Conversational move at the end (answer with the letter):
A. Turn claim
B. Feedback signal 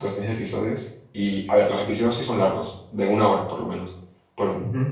B